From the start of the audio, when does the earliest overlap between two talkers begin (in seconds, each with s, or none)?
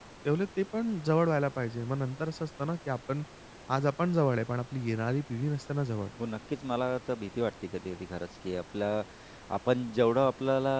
none